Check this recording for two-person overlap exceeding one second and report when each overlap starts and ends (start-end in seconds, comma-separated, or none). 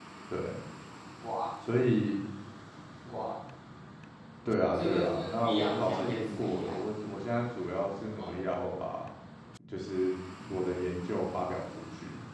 4.7-6.8